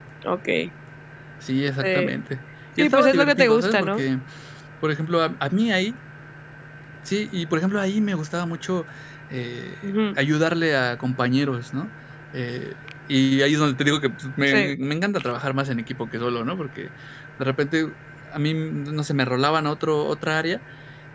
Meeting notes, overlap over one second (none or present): present